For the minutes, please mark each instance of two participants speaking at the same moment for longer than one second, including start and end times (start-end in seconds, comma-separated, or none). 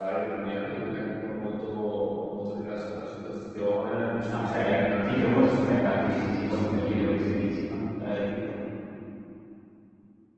4.3-7.2